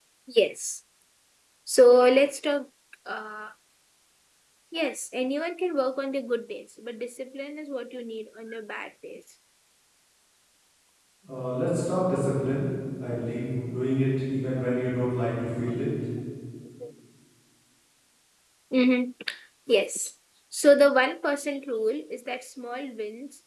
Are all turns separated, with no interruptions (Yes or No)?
Yes